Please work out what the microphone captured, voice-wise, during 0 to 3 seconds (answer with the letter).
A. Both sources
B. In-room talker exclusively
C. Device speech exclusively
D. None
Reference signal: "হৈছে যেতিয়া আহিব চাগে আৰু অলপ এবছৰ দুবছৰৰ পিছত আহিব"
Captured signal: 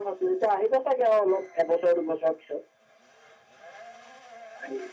C